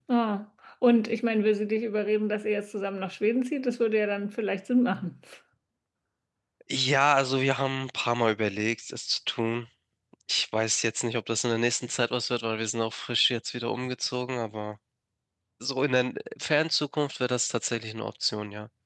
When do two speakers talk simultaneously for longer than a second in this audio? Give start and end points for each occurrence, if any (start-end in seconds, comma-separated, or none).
none